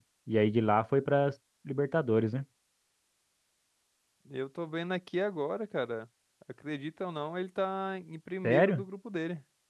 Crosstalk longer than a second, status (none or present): none